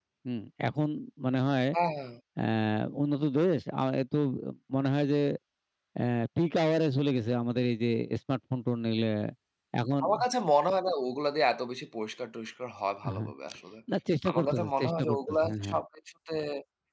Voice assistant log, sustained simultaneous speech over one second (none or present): present